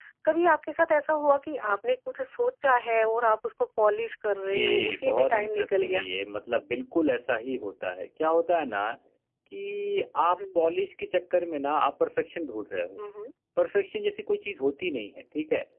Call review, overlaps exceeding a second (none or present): present